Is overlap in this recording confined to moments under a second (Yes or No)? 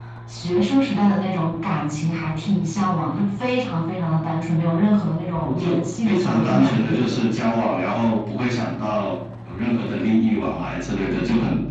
No